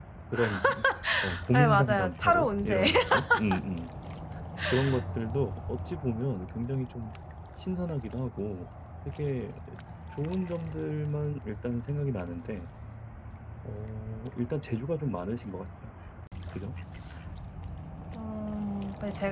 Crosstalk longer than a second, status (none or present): present